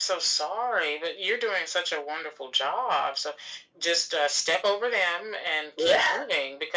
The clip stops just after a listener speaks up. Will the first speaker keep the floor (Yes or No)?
Yes